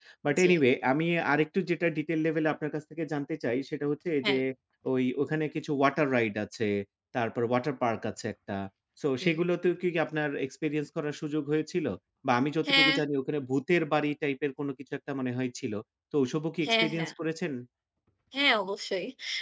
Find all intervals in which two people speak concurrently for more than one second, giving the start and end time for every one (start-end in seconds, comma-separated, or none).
none